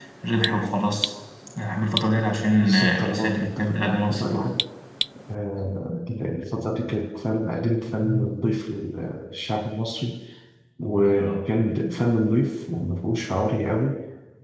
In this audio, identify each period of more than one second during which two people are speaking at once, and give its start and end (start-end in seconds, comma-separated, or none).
2.6-4.5